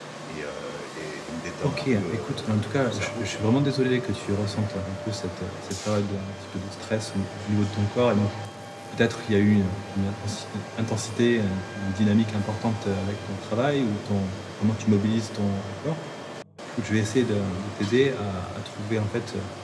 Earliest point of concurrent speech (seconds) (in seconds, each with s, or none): 1.6 s